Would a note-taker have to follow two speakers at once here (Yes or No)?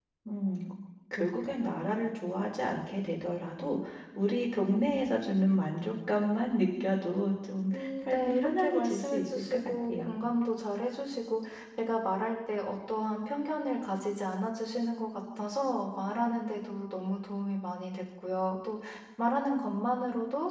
Yes